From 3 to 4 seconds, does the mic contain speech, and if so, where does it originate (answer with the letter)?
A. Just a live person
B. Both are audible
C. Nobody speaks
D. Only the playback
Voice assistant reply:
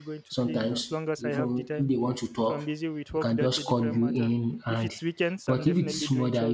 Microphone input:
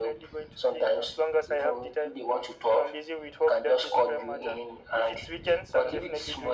D